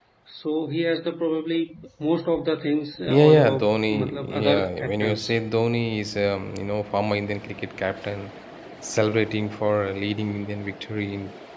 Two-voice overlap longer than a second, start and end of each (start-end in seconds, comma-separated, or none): 3.1-5.3